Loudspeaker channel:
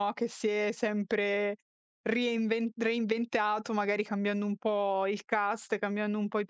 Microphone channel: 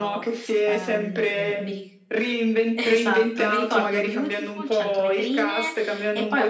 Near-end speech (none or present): present